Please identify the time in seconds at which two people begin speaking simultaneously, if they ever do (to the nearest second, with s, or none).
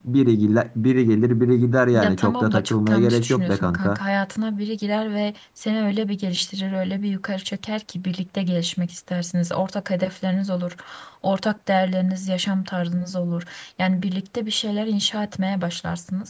2 s